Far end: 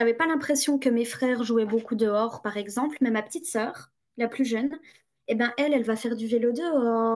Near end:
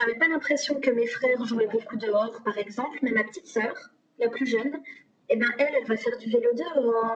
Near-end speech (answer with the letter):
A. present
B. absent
B